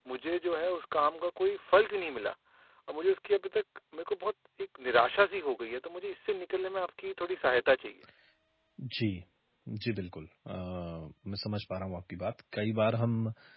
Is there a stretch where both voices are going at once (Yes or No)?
No